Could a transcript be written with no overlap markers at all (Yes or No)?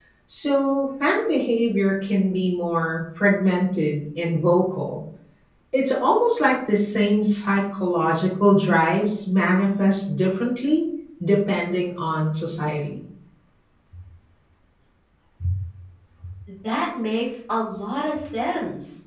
Yes